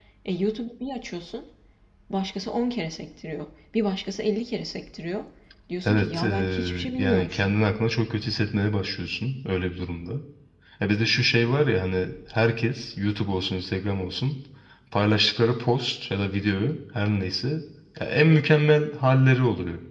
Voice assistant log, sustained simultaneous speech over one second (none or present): present